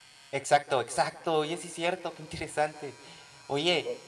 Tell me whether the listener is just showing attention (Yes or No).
Yes